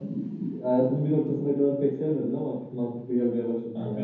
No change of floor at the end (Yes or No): No